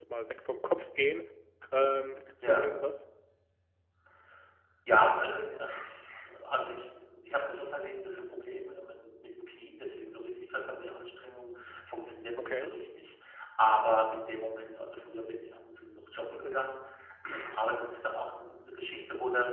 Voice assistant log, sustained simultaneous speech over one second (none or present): none